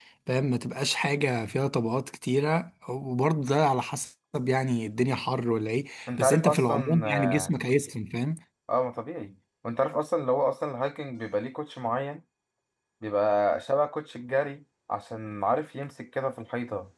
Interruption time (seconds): 6 s

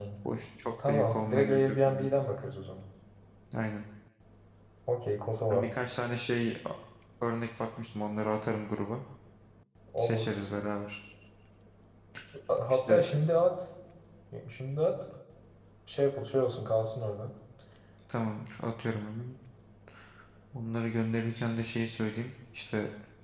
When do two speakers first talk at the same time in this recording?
1 s

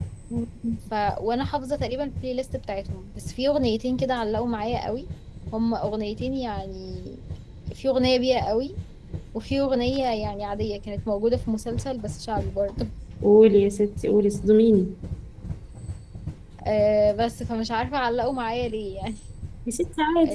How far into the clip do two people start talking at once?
none

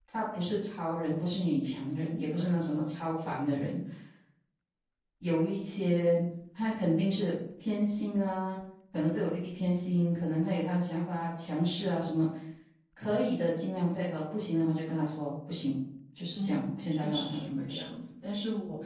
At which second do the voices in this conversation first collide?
16 s

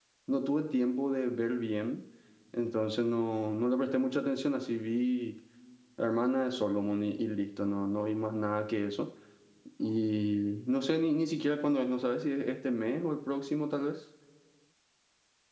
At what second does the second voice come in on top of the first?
none

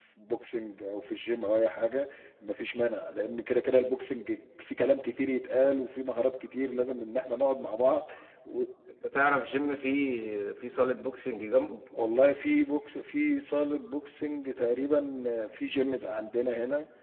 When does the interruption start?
none

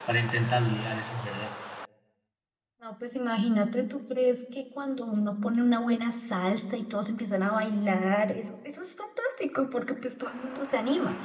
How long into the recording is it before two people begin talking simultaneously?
none

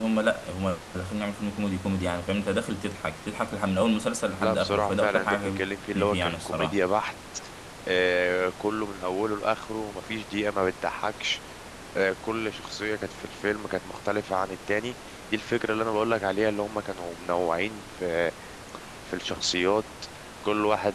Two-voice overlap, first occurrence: 4 s

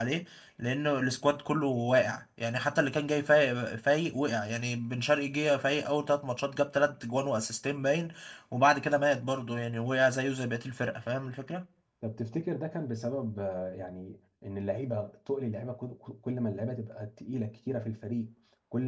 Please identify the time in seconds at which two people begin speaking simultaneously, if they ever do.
none

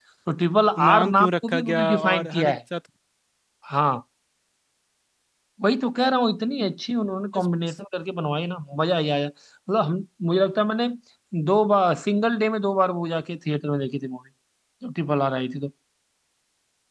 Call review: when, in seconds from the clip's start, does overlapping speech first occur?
1 s

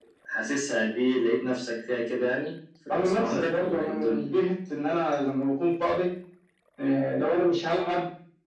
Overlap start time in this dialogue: 3 s

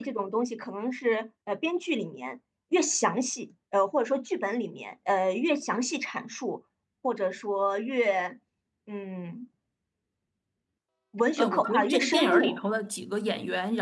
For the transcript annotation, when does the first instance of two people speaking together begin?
11 s

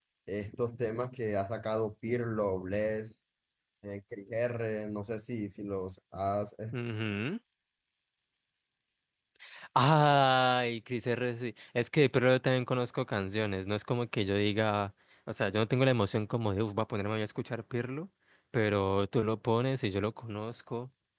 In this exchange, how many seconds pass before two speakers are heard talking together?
none

